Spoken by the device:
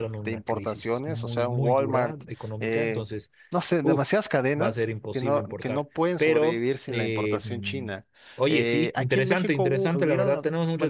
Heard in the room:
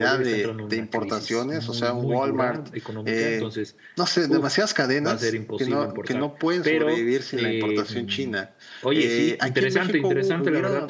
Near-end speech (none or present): none